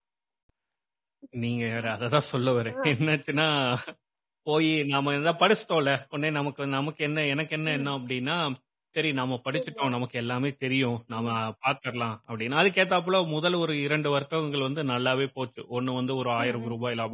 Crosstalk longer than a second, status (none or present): none